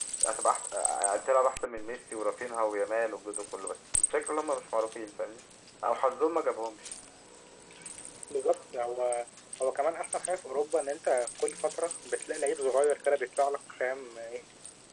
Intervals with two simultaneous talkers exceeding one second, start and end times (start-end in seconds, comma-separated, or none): none